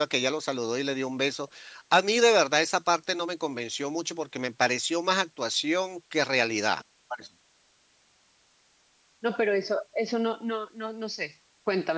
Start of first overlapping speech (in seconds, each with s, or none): none